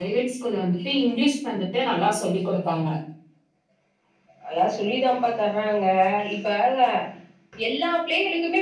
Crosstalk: none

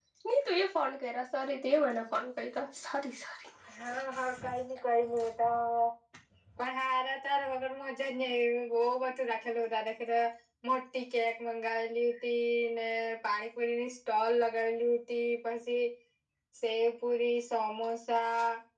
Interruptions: none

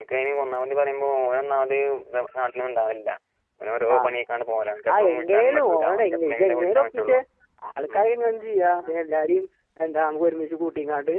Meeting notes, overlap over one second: present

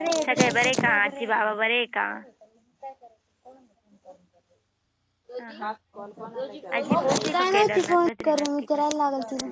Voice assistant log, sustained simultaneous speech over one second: present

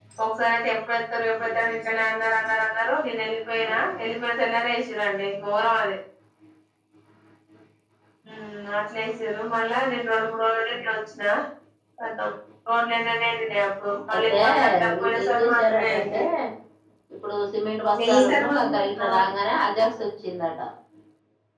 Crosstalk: present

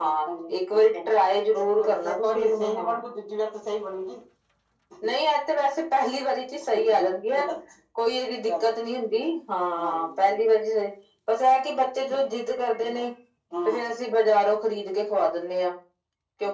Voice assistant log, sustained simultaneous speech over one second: present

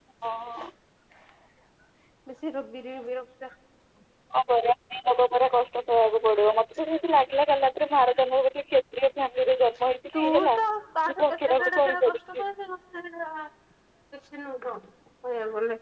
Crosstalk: present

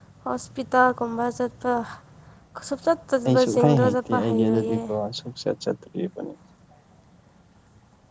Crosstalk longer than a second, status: present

